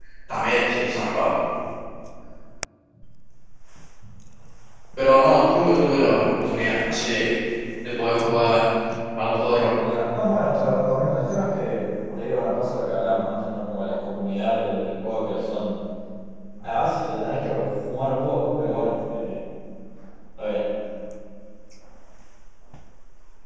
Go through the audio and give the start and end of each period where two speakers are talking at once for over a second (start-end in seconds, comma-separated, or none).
none